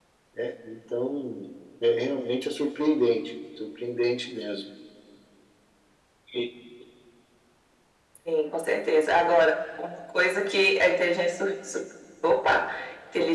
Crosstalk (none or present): none